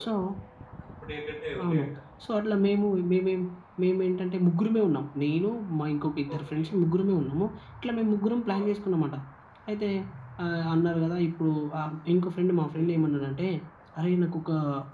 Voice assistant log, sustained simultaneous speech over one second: none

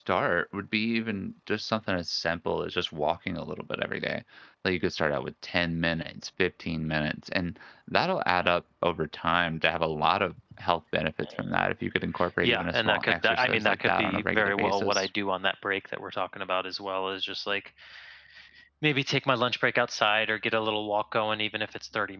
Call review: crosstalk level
present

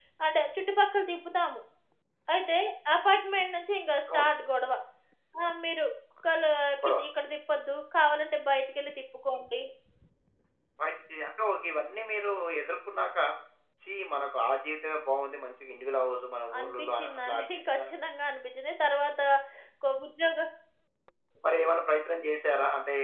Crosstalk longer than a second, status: present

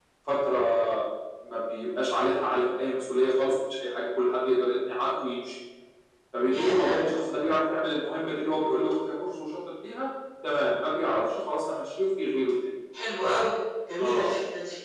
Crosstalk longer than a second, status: none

